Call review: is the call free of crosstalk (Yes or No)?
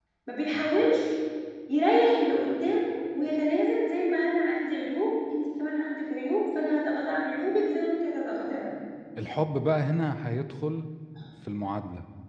Yes